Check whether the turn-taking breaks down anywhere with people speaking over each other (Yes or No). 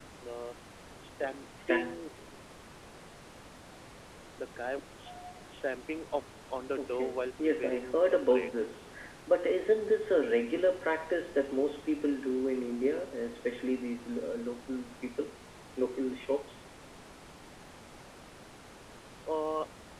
Yes